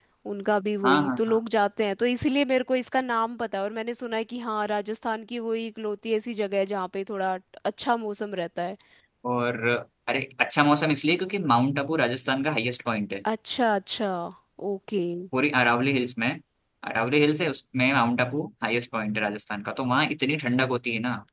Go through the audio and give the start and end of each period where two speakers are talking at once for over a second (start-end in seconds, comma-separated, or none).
none